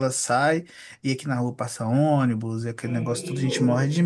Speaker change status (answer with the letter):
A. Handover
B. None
B